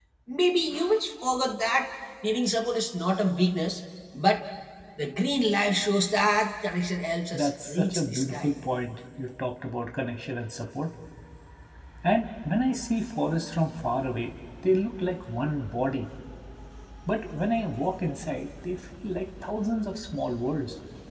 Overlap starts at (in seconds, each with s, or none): 7.3 s